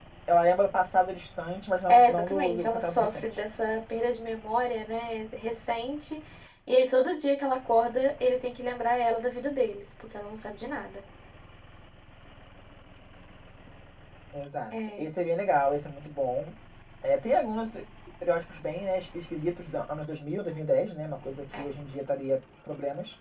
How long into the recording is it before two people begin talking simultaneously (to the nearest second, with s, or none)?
2 s